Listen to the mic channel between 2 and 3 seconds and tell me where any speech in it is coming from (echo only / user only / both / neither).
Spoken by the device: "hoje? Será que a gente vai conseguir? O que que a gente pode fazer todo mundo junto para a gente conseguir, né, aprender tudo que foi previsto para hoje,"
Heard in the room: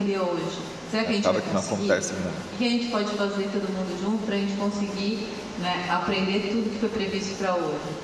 both